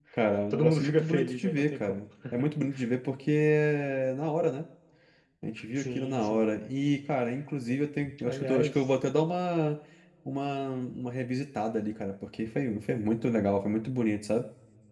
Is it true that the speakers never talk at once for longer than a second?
No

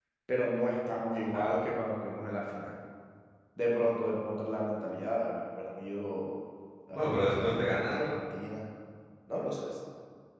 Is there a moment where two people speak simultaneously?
Yes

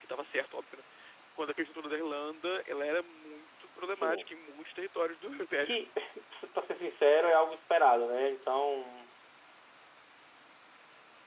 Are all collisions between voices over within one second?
Yes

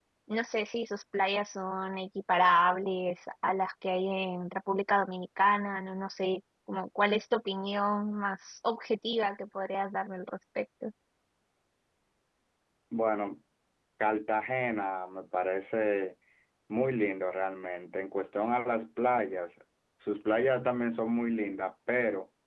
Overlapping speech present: No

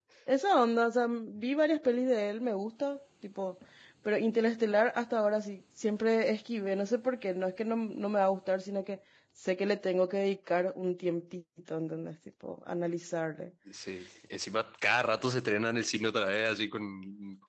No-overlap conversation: Yes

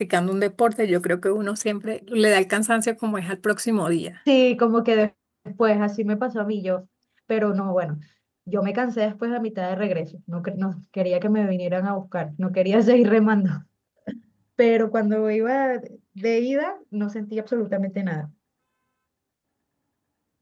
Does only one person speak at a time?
Yes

